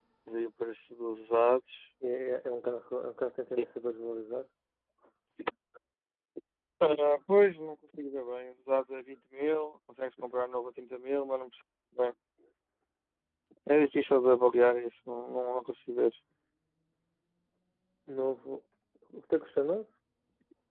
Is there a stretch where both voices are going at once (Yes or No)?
No